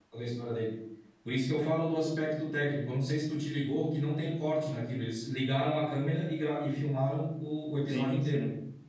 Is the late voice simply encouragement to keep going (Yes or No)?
No